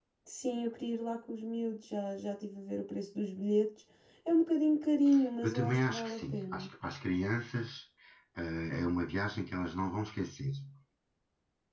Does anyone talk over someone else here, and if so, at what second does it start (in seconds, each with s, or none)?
5.4 s